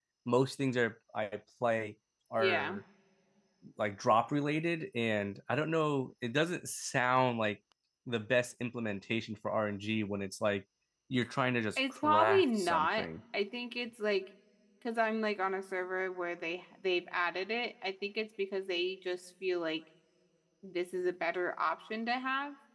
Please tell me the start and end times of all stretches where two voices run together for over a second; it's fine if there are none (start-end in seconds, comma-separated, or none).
11.8-13.0